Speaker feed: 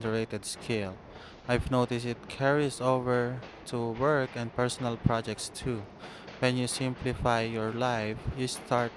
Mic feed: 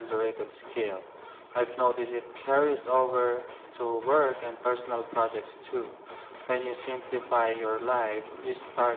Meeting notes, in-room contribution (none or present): none